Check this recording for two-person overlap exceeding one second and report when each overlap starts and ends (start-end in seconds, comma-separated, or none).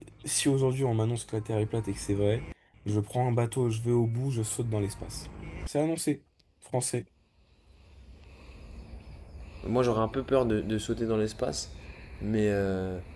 none